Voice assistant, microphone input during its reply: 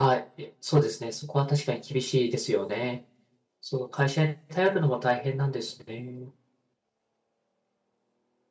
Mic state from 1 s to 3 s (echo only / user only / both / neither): user only